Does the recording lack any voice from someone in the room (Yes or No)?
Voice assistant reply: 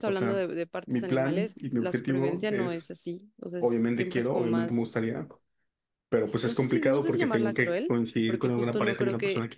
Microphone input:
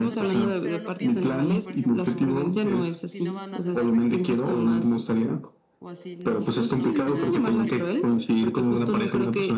No